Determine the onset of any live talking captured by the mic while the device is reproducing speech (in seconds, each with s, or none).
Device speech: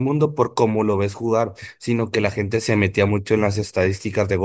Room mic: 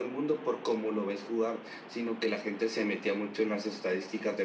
none